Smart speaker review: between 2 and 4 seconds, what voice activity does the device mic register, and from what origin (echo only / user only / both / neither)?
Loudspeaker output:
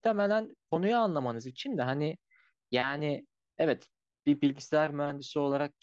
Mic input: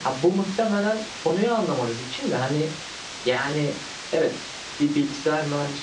echo only